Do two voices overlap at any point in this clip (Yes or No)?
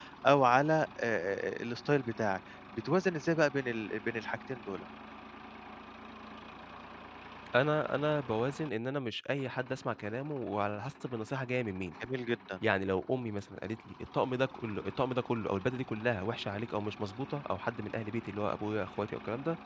No